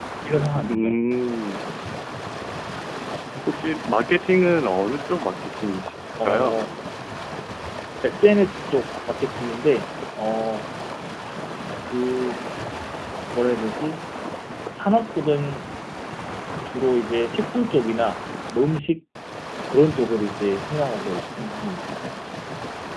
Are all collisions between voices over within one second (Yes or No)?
Yes